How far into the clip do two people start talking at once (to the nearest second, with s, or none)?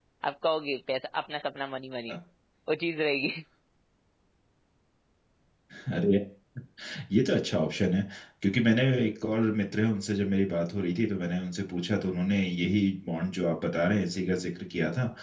none